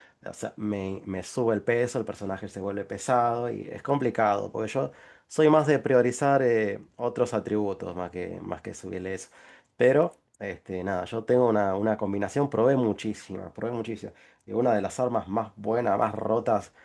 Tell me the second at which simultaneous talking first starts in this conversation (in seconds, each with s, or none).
none